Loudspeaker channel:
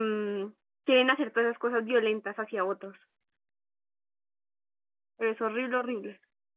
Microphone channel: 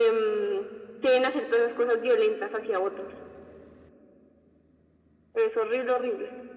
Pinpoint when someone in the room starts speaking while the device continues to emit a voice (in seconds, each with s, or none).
none